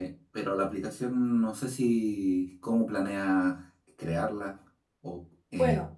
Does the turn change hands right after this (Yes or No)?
Yes